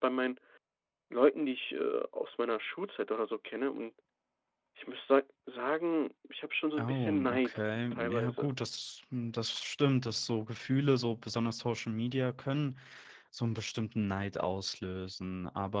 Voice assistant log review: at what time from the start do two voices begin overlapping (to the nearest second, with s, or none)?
7 s